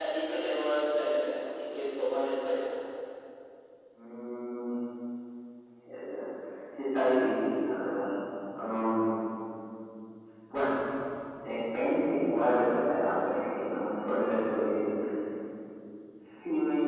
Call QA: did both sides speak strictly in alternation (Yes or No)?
Yes